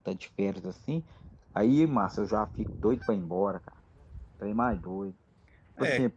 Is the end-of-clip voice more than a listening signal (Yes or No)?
Yes